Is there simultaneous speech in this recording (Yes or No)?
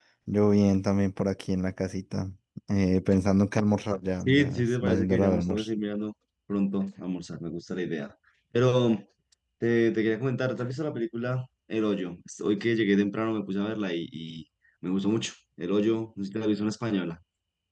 Yes